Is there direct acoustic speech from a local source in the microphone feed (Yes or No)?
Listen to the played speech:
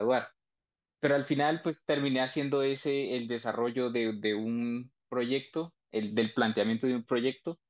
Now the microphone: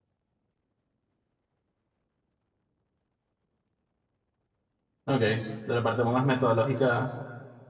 Yes